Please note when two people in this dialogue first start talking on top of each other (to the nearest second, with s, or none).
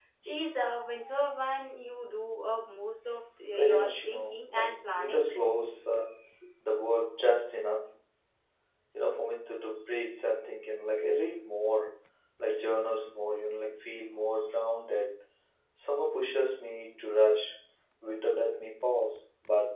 4 s